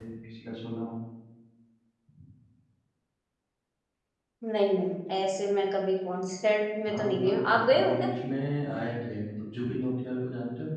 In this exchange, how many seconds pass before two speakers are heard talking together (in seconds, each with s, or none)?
6.9 s